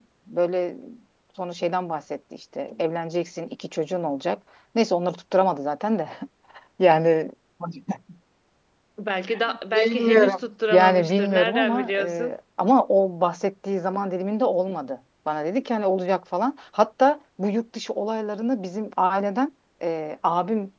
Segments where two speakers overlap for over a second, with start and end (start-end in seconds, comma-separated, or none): 9.5-12.3